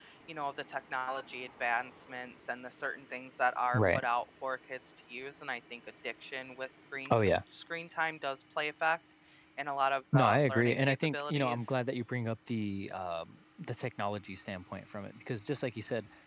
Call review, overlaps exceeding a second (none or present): present